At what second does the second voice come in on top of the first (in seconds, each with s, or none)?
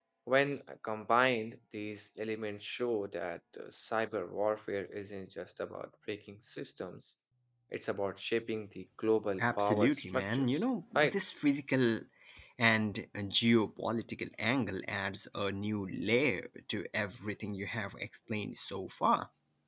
9.4 s